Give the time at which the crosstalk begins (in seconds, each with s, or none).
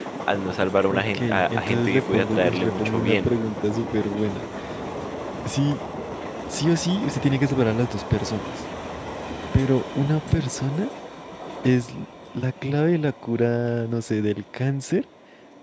0.9 s